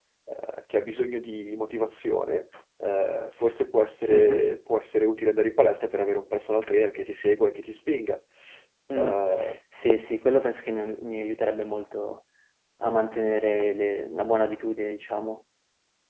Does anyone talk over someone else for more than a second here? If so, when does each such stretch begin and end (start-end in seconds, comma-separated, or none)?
none